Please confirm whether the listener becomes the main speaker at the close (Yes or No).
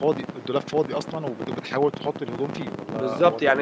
Yes